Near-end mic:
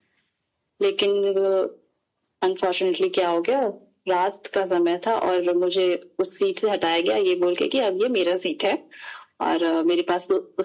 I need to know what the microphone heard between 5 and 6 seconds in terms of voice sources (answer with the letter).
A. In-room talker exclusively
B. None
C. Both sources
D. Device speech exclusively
D